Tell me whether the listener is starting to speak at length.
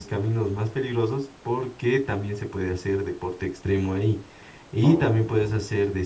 No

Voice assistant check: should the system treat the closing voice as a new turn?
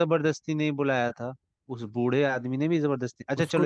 No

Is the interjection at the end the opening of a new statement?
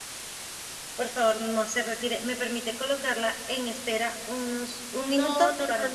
Yes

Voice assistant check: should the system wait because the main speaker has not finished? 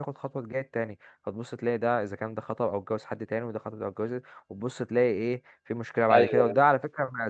Yes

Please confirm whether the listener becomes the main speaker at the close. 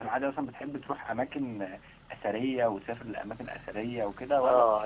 Yes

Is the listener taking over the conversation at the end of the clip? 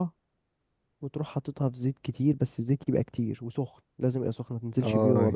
Yes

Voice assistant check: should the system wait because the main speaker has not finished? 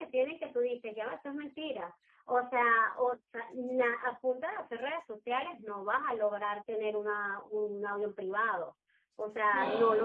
Yes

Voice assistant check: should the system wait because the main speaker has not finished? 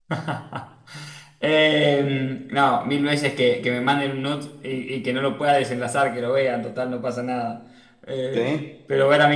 Yes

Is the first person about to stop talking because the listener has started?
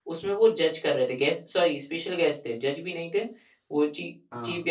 No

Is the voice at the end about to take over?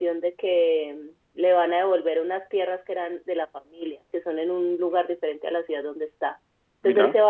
No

